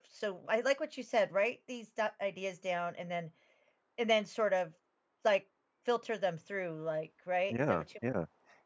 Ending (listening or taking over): taking over